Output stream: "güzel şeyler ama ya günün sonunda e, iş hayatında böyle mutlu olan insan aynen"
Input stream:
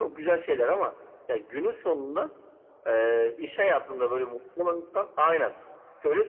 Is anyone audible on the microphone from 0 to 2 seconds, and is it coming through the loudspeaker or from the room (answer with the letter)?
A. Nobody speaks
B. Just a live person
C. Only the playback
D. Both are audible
C